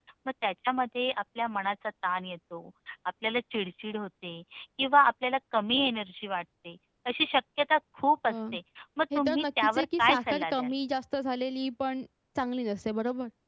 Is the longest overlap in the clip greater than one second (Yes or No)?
Yes